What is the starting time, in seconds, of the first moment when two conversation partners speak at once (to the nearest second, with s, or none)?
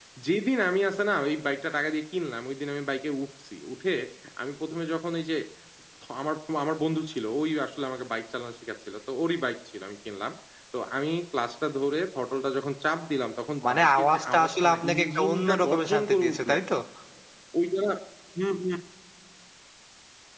14 s